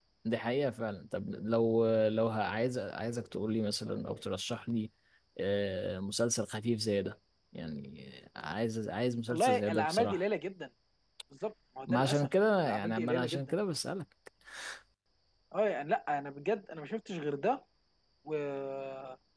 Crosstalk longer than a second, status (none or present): present